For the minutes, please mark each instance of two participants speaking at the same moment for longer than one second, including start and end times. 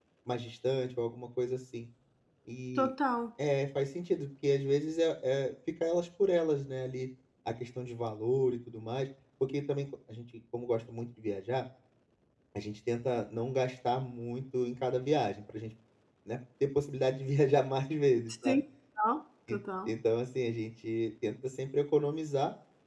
none

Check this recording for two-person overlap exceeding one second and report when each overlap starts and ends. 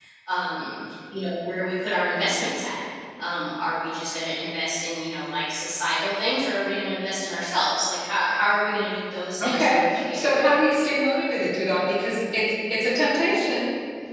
9.4-10.8

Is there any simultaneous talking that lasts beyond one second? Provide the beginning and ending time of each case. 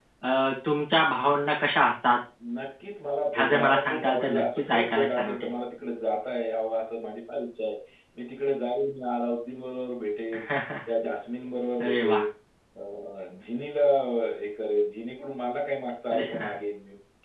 3.3-5.5

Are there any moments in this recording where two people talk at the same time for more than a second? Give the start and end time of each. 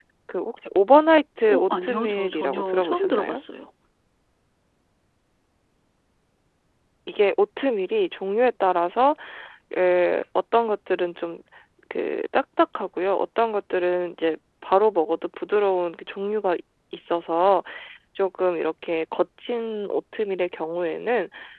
1.5-3.4

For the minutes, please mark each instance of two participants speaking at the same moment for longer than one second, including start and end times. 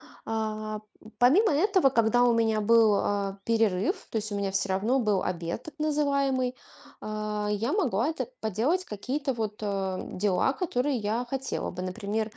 none

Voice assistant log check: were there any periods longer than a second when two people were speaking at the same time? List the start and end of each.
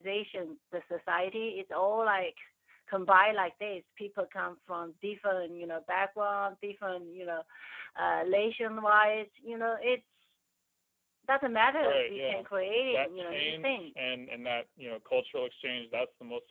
11.8-14.1

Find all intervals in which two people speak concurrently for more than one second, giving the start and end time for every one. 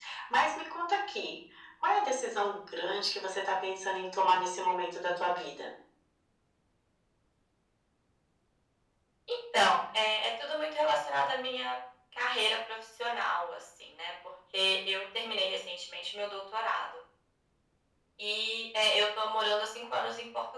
none

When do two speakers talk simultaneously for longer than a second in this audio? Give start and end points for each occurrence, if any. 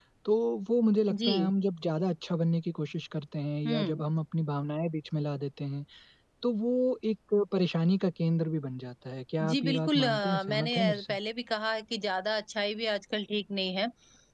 9.5-11.2

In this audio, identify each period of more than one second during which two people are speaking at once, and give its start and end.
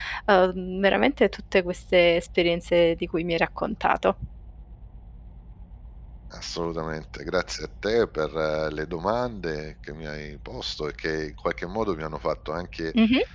none

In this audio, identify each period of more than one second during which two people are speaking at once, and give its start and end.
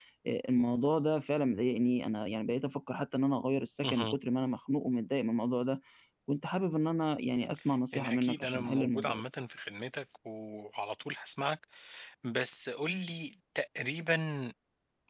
7.9-9.2

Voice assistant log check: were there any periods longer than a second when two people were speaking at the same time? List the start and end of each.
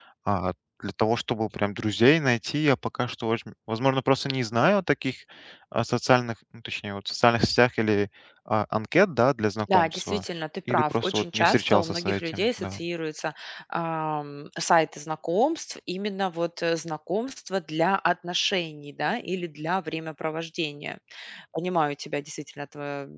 10.7-12.8

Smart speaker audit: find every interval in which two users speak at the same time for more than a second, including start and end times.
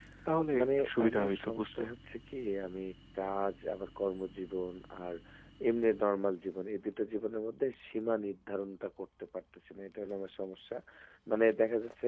0.6-1.8

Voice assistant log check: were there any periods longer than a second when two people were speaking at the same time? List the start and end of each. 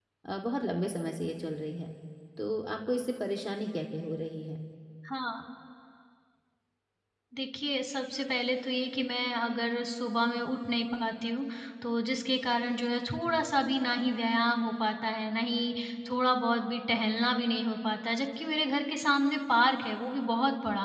none

